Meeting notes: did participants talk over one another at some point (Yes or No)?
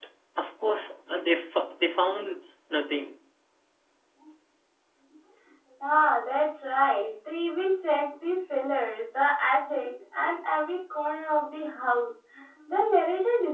No